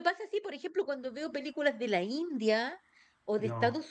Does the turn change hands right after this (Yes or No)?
No